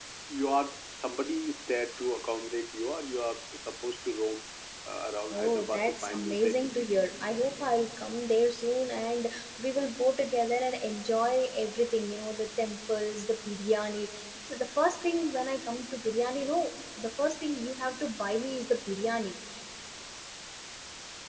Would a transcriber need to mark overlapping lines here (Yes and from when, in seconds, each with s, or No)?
Yes, from 5.3 s